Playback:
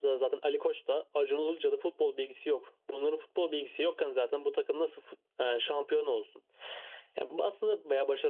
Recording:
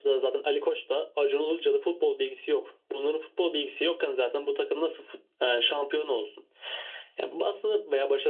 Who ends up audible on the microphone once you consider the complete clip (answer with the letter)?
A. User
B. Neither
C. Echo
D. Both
C